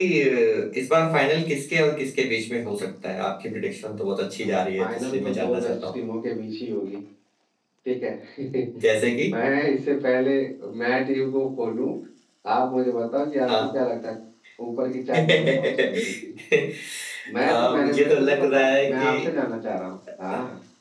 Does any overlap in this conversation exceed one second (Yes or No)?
Yes